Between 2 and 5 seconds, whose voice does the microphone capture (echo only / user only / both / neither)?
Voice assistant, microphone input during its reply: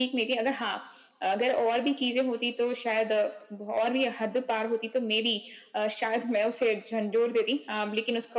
echo only